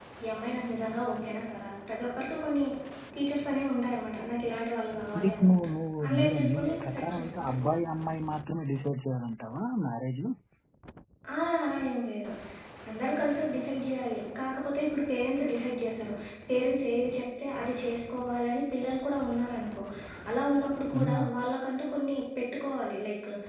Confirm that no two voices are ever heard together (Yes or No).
No